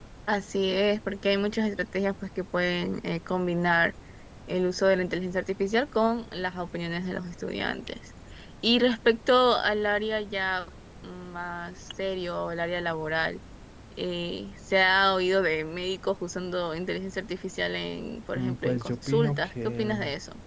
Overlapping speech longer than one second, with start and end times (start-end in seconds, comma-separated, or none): 18.3-19.9